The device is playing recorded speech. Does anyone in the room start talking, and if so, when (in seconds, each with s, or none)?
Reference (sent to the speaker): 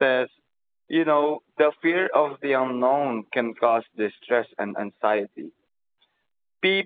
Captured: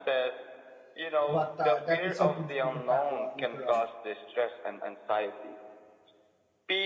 1.3 s